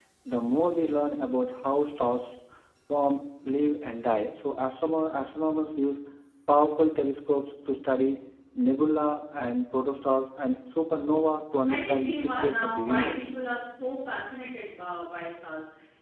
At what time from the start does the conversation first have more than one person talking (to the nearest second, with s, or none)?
12 s